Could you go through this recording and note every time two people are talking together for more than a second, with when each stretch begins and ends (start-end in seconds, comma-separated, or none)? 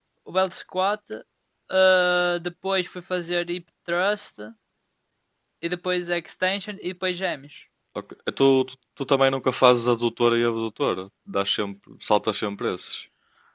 none